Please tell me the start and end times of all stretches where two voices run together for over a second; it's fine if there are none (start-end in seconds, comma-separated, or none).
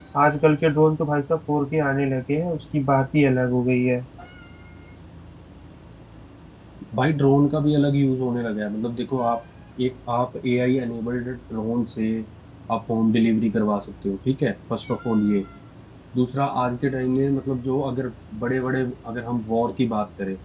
none